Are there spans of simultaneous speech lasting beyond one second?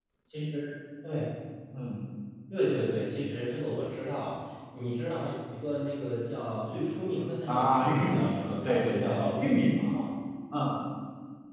Yes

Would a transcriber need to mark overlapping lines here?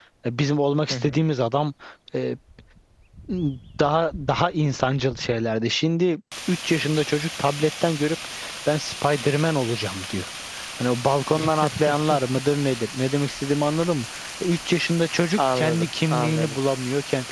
Yes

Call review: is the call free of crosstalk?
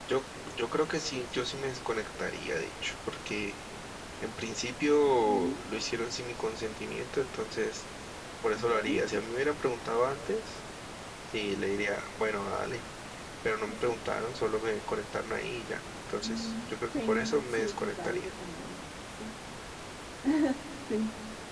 No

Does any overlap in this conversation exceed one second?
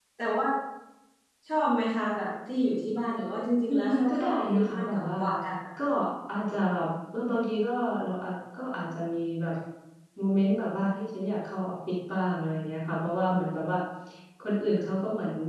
Yes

